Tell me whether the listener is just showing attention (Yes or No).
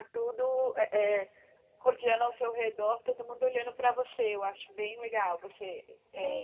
No